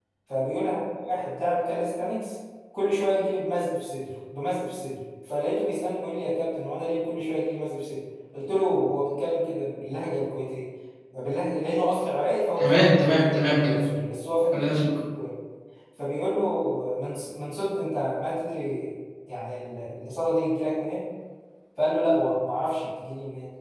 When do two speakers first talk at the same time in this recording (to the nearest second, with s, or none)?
13 s